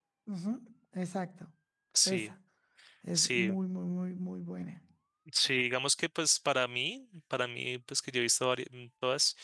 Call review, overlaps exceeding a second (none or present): none